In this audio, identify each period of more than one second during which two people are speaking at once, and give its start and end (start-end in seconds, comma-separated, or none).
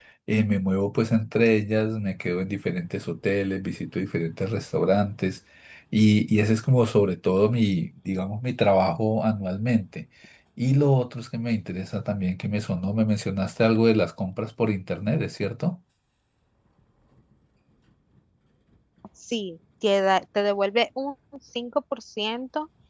none